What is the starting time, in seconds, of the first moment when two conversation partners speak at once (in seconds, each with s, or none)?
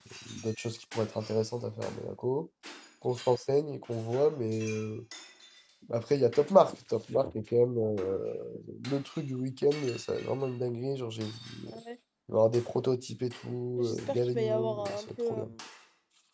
13.8 s